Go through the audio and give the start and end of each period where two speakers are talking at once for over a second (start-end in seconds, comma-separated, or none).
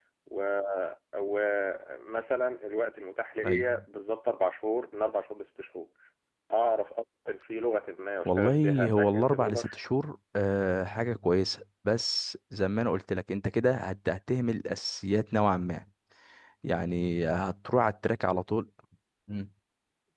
8.2-9.8